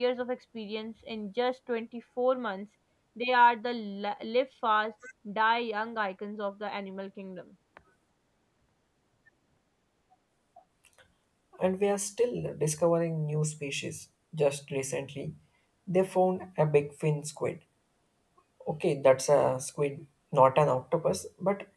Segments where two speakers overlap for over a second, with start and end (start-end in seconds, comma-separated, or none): none